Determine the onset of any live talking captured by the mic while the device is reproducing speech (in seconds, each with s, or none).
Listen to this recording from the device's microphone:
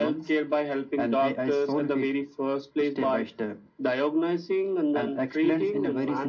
none